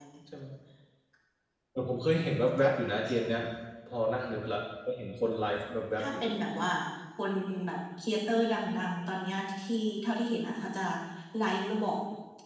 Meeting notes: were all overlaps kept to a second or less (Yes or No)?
Yes